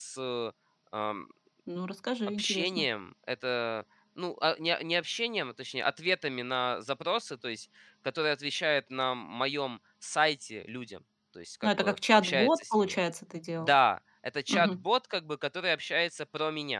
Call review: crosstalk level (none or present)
present